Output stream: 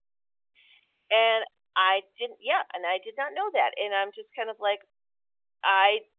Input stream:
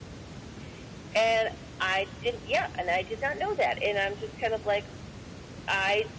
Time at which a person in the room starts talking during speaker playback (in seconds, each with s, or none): none